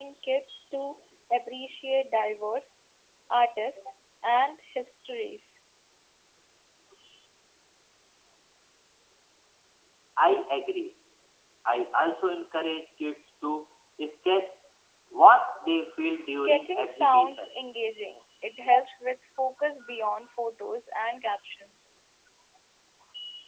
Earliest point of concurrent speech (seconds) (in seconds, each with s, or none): 16.3 s